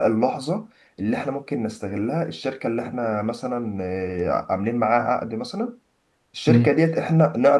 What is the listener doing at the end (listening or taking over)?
listening